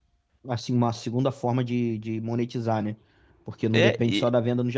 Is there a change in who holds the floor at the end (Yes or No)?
No